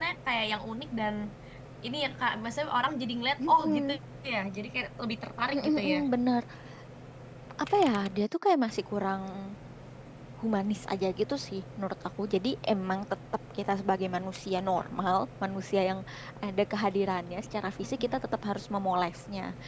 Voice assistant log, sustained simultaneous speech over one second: none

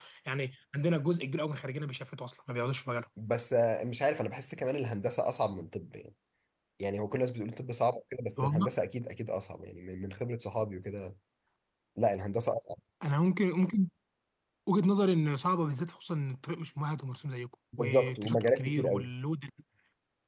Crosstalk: present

